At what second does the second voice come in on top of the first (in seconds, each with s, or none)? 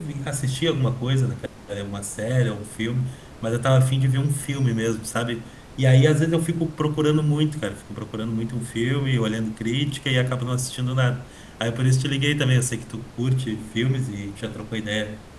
none